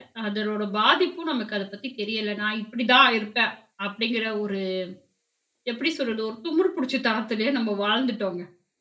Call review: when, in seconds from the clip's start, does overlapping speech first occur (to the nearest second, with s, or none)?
none